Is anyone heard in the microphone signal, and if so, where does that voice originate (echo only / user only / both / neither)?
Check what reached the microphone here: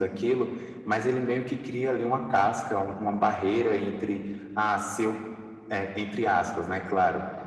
echo only